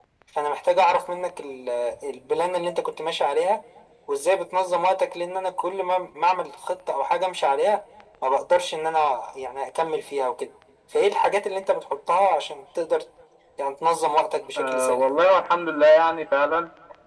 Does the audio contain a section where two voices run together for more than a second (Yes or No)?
No